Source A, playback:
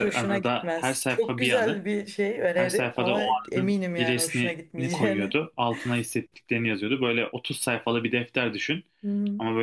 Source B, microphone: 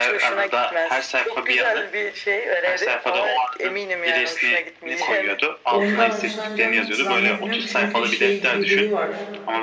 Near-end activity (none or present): present